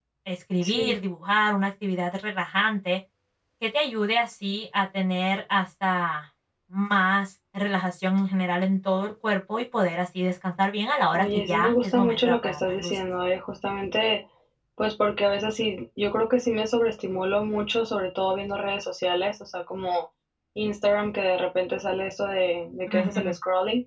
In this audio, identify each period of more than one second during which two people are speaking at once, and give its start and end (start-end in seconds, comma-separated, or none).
11.1-12.9